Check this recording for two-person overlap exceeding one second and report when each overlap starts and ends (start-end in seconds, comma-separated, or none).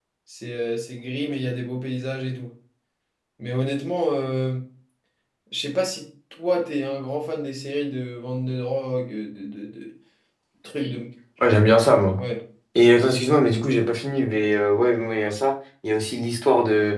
none